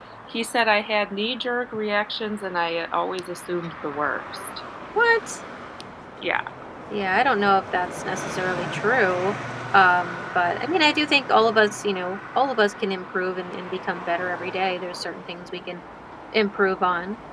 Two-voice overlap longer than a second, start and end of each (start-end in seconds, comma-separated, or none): none